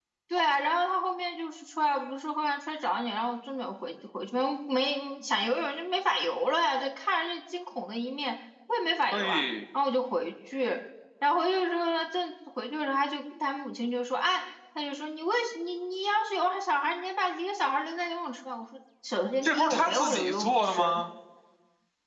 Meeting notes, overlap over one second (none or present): present